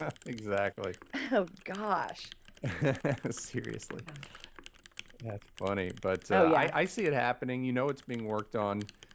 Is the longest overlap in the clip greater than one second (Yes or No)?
No